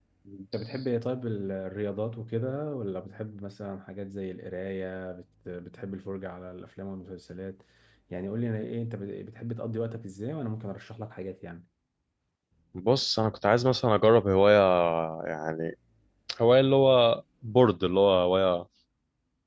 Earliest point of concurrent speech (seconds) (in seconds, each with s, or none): none